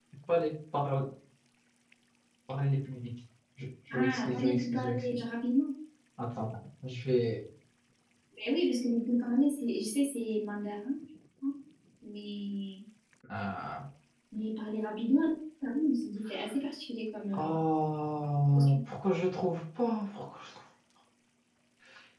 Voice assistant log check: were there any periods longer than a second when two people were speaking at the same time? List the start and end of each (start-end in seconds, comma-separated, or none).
3.9-5.2